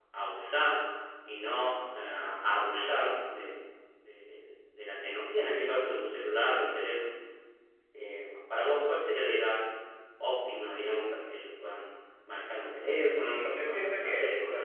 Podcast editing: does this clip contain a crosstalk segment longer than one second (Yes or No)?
Yes